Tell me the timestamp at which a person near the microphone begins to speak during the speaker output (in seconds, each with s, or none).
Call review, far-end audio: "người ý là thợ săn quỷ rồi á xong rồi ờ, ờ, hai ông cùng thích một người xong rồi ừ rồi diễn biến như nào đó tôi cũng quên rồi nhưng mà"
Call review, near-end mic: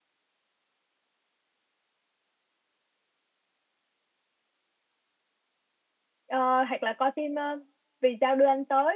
6.2 s